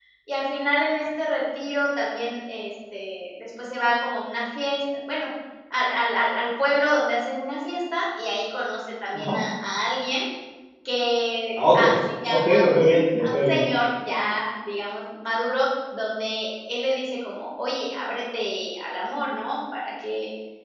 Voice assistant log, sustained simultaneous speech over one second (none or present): present